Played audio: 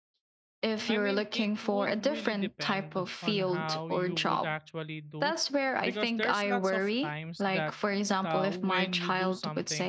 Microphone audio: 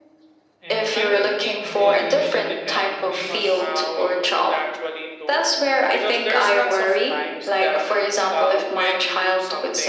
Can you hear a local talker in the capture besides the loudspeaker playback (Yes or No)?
Yes